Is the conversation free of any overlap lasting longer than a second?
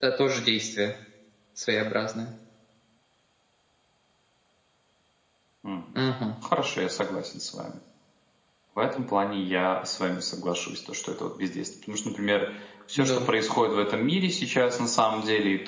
Yes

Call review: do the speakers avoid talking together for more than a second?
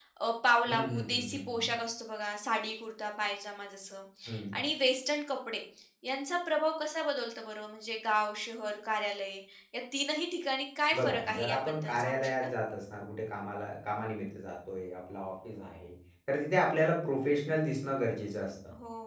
No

